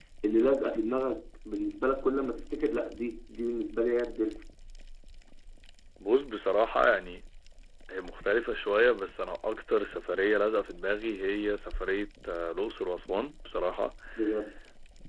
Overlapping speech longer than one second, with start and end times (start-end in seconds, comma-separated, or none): none